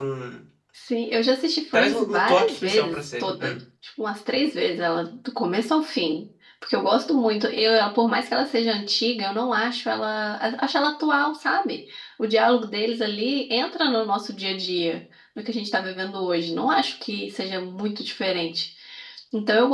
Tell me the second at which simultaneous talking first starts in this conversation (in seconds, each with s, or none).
1.7 s